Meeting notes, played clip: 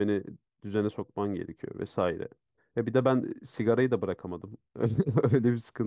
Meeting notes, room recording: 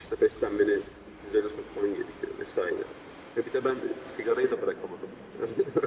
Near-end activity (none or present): none